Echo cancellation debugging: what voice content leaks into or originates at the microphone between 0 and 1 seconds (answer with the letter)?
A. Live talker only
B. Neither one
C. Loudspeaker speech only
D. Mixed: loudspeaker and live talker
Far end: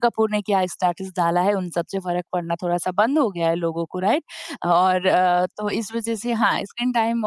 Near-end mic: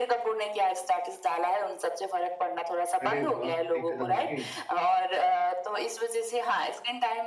C